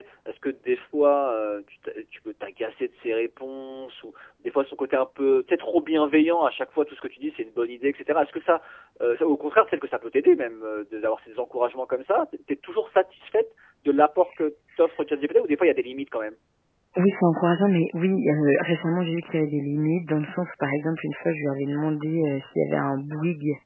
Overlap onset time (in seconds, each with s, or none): none